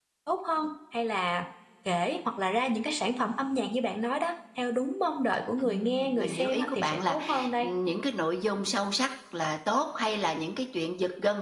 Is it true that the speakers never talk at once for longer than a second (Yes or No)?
No